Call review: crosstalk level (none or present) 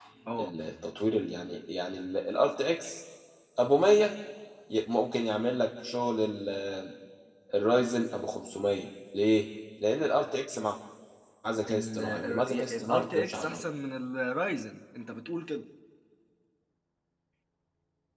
present